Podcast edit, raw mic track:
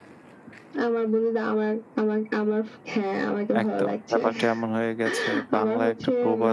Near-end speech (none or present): present